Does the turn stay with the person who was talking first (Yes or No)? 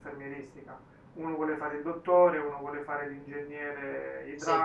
Yes